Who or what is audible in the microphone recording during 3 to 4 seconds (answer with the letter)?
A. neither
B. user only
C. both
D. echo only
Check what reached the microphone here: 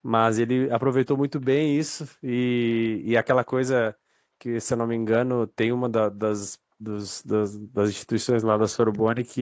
B